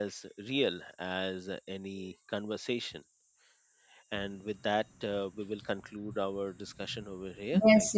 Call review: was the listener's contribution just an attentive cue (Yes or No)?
No